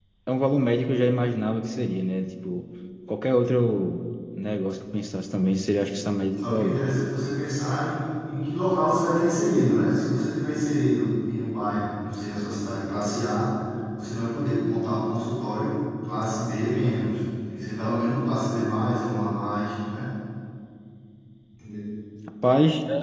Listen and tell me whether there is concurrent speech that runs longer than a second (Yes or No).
No